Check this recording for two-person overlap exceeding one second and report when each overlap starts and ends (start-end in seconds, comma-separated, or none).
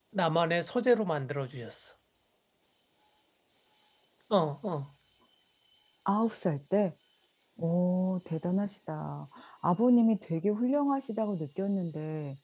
none